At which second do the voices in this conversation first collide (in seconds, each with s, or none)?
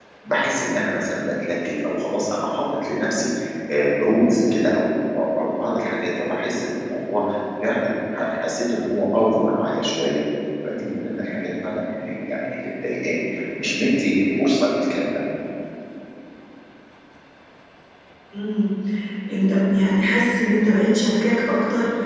none